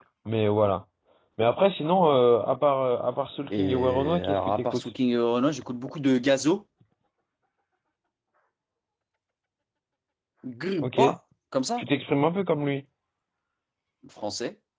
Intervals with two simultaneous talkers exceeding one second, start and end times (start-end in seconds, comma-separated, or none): 3.5-4.9